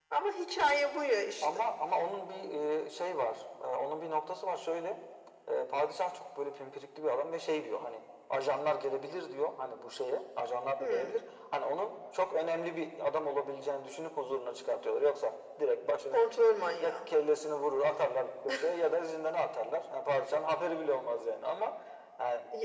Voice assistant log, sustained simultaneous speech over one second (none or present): none